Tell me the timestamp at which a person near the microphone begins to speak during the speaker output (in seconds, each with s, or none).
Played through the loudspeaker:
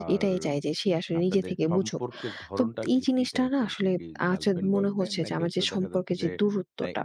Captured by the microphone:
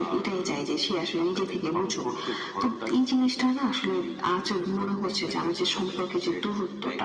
none